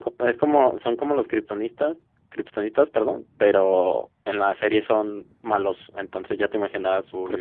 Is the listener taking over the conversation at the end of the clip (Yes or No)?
No